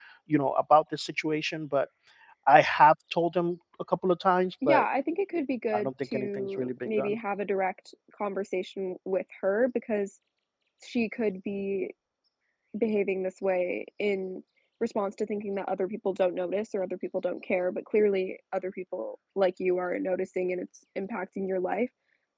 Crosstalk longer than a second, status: present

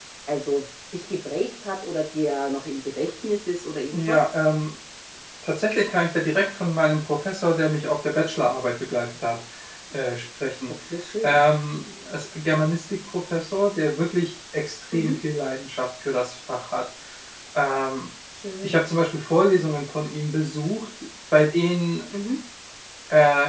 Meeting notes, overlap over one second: none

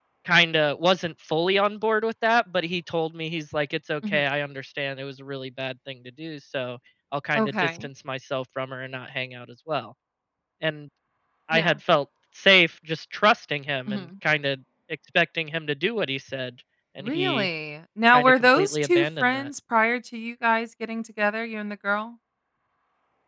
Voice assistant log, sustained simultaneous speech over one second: present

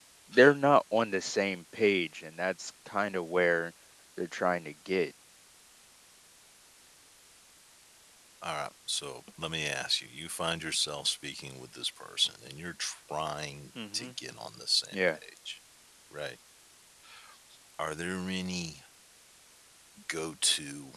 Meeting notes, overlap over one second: none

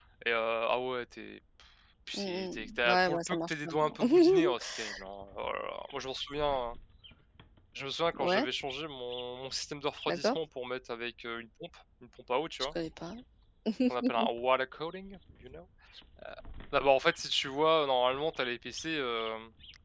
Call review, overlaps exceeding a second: present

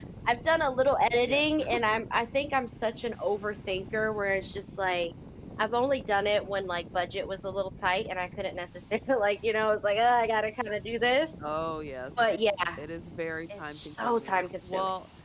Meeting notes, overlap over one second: present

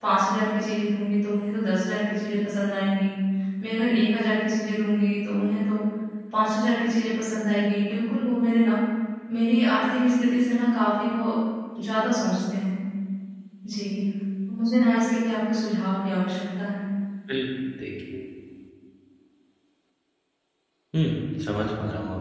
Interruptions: none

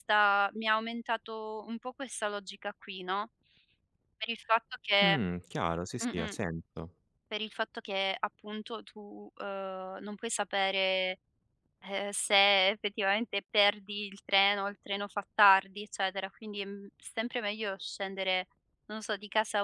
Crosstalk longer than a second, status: none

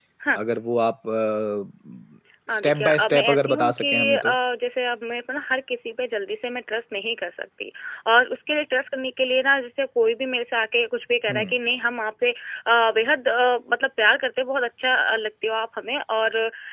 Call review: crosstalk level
present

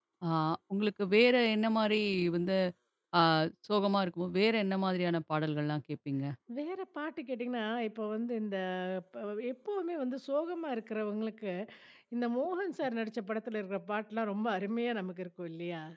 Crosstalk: none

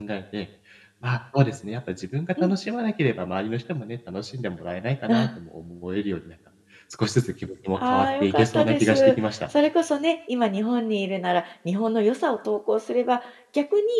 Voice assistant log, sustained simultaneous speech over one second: present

